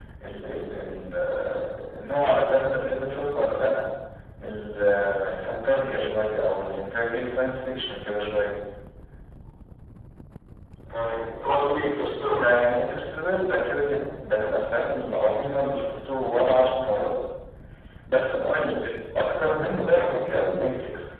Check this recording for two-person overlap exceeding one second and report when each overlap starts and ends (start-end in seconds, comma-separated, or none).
none